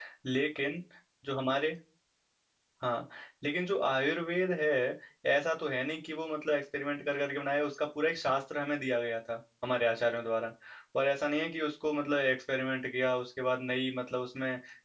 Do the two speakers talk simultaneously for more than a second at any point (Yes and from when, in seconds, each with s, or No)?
No